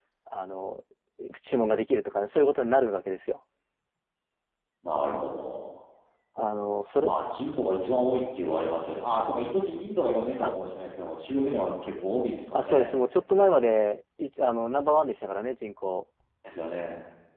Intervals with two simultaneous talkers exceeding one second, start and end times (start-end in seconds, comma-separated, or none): none